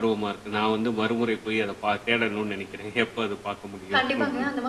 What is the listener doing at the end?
taking over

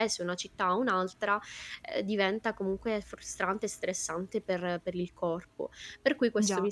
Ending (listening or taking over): listening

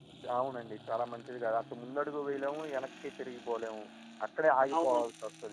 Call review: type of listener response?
listening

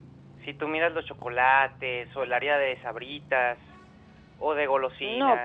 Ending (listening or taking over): taking over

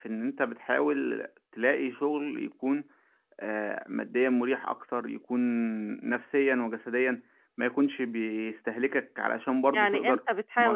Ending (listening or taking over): taking over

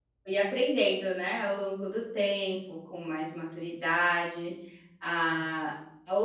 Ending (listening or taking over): listening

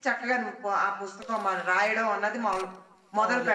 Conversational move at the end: taking over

